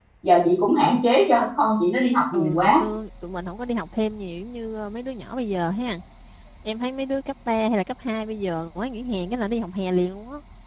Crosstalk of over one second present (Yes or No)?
No